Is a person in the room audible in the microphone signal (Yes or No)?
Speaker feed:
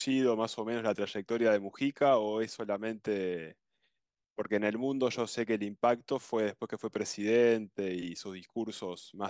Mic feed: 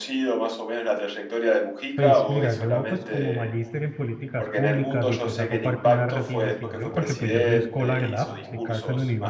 Yes